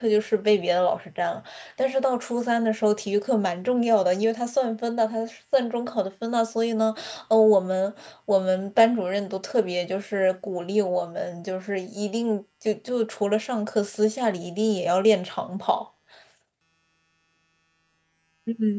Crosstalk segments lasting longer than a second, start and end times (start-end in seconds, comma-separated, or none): none